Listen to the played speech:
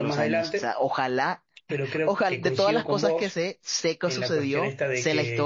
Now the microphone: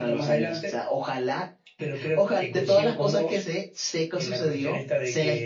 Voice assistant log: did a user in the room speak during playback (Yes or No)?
No